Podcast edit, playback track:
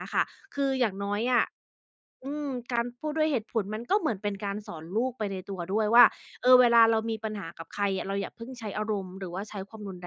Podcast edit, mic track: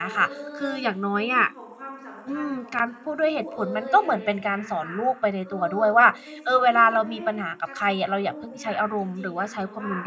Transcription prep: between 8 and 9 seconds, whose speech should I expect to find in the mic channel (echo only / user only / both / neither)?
both